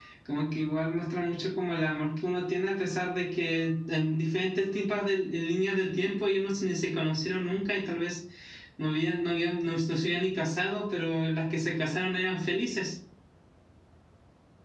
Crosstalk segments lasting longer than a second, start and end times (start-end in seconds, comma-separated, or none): none